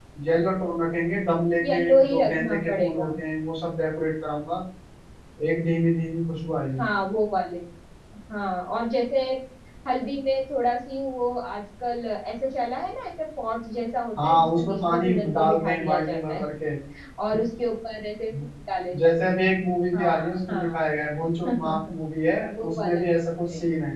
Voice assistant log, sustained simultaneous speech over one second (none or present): present